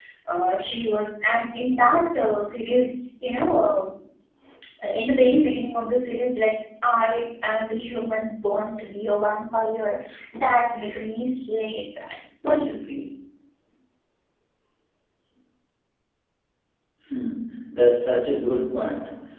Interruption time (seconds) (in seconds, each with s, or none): none